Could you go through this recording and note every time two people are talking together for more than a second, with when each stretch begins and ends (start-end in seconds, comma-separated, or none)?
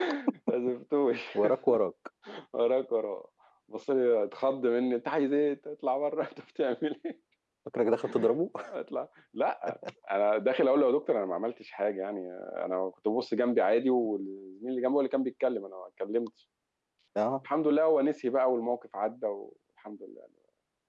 none